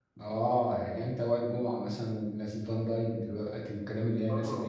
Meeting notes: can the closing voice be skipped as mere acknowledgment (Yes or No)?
No